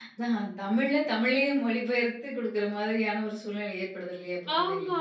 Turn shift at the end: Yes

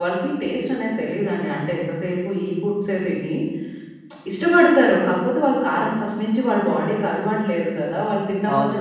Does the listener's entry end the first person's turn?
No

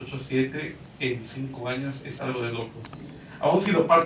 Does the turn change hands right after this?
No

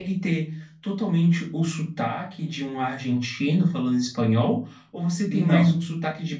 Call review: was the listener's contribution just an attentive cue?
Yes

